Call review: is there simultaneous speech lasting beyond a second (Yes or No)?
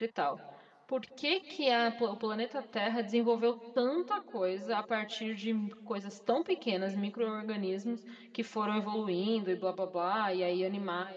No